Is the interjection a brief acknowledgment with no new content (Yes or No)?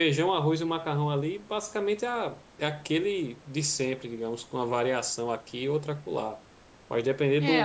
No